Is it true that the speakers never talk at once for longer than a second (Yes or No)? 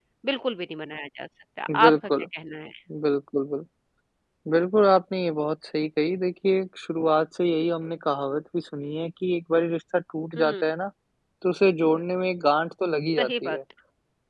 Yes